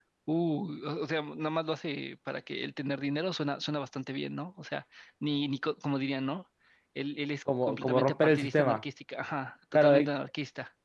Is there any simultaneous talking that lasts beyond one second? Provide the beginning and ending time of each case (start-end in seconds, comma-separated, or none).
7.6-8.8